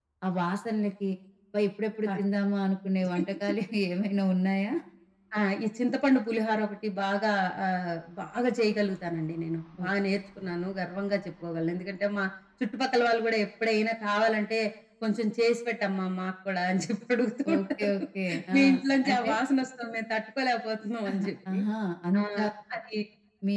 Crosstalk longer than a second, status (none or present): none